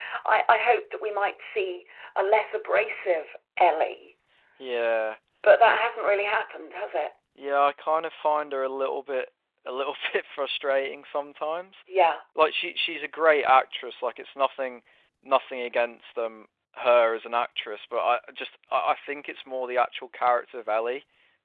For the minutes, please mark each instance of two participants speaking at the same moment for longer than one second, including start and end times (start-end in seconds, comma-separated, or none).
none